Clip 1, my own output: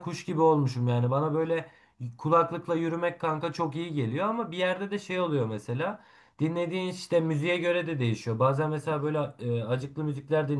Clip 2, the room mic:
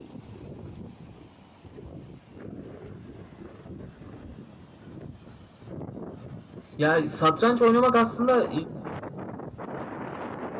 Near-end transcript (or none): Ya satranç oynamak aslında